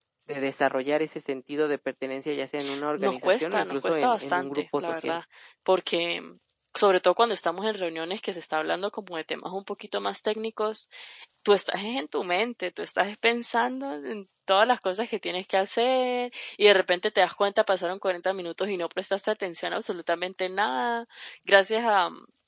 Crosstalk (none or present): present